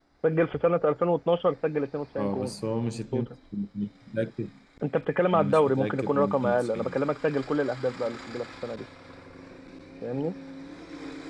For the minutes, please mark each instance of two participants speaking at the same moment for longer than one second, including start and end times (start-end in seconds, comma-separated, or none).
5.3-7.0